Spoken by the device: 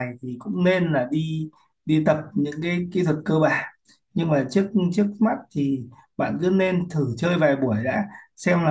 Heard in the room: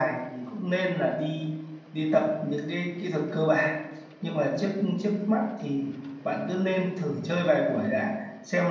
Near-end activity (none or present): none